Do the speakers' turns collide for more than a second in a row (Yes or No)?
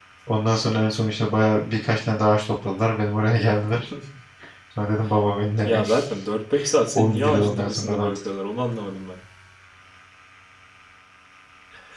Yes